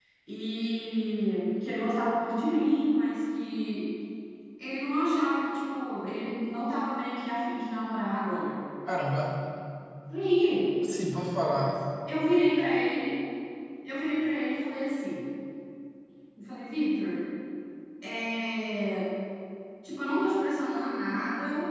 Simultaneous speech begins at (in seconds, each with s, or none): none